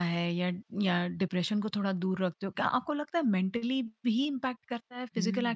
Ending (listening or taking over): taking over